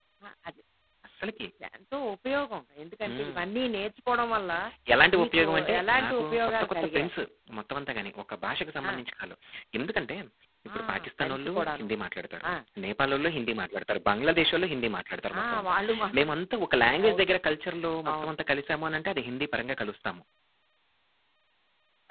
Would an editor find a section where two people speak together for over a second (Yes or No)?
Yes